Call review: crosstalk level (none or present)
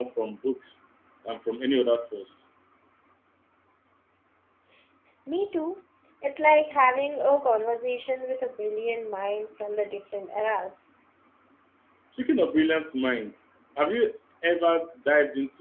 none